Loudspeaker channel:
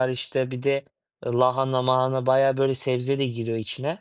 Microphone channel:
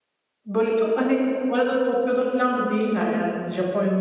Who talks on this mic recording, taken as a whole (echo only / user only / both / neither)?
user only